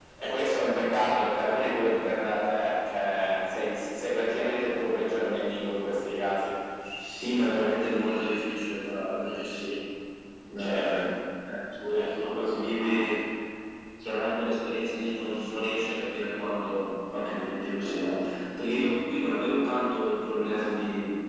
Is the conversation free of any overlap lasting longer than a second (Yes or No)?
No